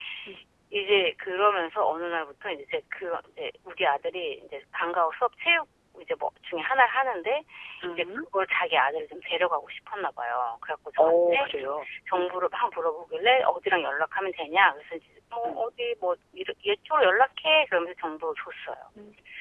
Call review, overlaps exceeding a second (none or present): none